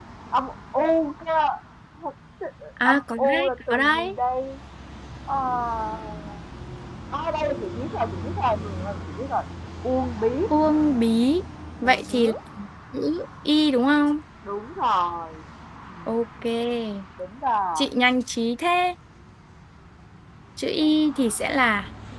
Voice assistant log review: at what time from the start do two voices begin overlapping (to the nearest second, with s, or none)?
3 s